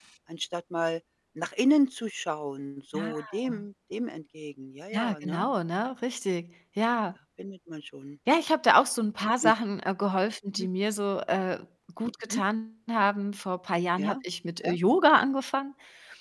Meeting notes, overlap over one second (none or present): none